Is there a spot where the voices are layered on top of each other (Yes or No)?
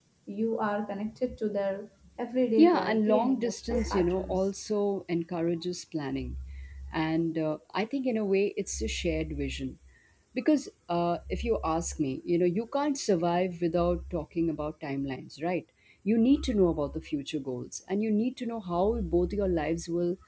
Yes